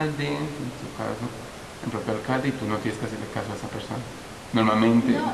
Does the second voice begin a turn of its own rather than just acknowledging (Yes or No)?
Yes